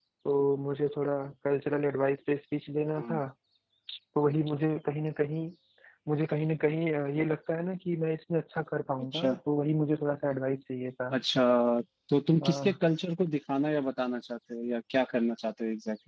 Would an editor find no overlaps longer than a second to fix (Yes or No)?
Yes